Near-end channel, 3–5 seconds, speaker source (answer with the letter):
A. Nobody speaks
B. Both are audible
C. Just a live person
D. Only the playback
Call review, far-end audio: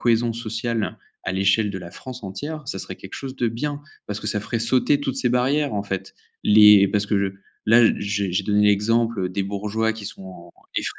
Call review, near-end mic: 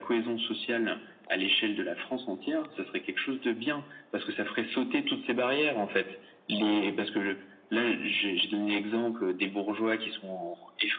D